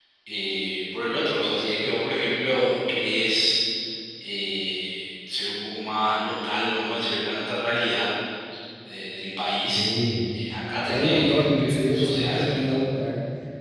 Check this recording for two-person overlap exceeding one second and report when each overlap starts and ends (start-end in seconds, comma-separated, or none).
10.8-12.8